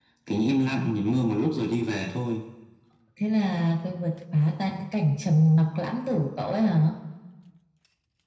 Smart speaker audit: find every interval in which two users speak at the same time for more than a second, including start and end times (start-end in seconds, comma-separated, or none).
none